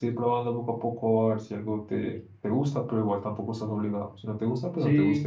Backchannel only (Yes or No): No